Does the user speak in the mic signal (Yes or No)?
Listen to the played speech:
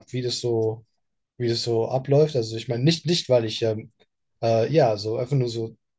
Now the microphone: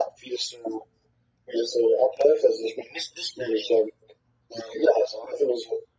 No